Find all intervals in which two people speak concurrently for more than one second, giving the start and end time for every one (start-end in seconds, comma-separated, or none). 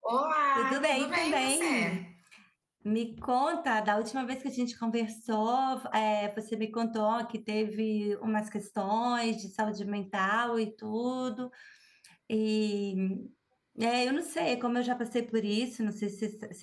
0.5-2.0